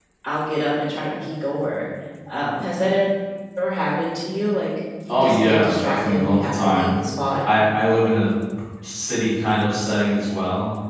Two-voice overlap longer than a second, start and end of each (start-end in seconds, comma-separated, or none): 5.1-7.0